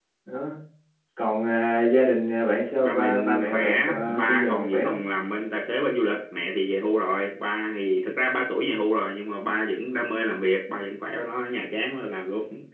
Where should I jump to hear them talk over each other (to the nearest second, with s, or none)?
3 s